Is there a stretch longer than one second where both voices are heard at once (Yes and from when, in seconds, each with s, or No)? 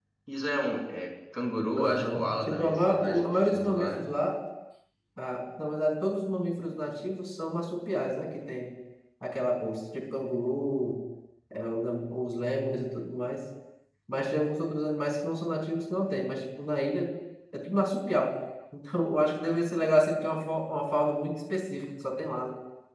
Yes, from 1.8 s